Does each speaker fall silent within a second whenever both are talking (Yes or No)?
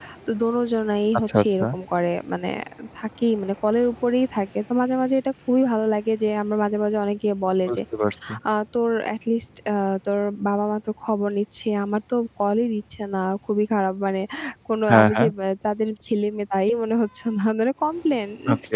Yes